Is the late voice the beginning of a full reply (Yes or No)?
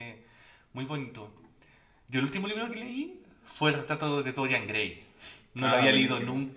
No